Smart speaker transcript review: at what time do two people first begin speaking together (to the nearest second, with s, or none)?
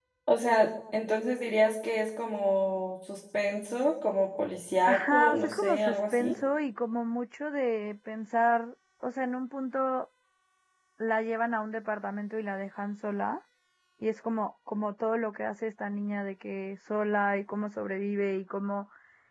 5 s